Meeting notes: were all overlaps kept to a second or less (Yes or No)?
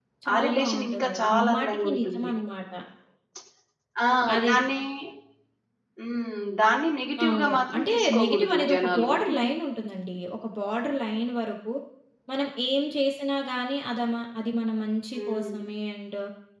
No